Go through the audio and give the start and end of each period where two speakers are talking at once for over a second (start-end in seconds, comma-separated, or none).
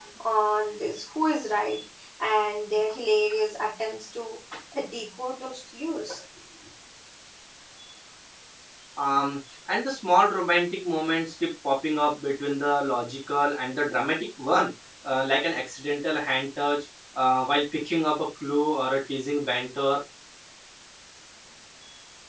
none